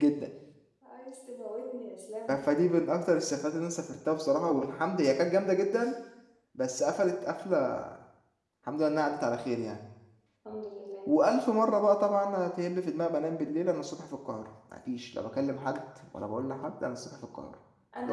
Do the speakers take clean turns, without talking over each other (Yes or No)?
Yes